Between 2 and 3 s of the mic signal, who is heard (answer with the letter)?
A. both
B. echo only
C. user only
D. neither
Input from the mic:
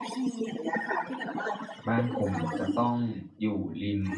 A